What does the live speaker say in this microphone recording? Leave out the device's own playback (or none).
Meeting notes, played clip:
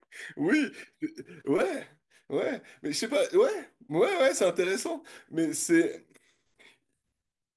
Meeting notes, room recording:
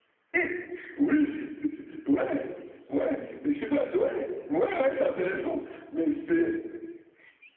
none